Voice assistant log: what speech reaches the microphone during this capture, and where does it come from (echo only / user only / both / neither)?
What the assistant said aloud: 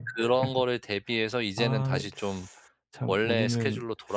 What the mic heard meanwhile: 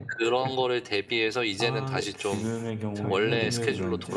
both